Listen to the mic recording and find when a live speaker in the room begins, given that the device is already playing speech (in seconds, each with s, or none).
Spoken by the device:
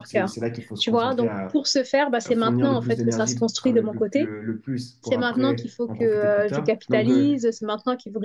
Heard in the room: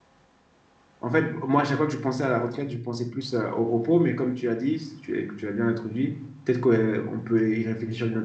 1.0 s